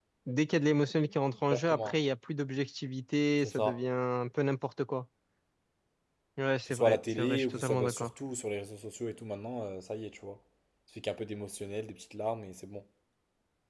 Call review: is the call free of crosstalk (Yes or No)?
No